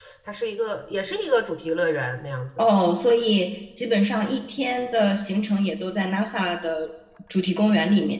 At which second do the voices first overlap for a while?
none

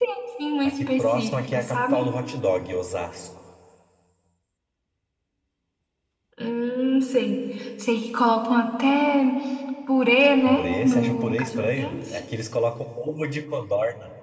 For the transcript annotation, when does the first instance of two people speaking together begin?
1 s

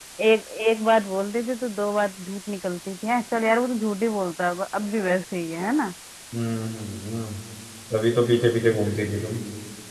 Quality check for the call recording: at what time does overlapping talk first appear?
none

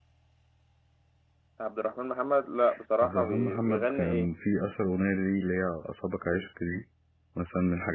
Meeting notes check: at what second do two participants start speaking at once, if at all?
3 s

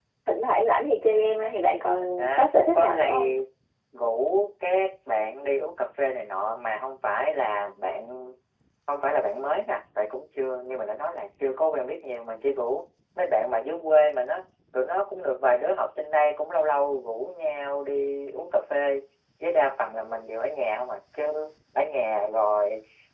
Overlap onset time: 2 s

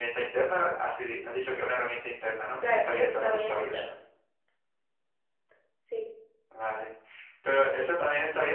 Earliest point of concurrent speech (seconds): 3 s

